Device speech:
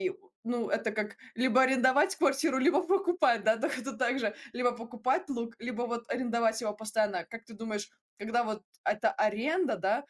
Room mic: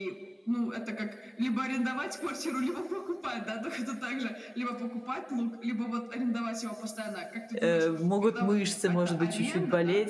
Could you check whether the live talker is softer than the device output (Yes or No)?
No